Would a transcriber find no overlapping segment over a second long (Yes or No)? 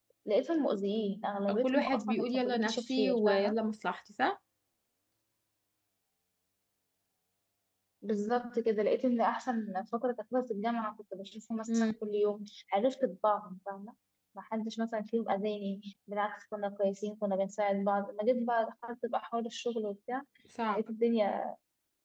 No